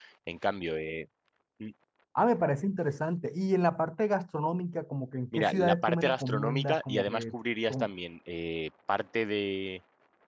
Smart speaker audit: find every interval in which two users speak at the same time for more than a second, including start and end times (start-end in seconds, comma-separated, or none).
5.3-7.2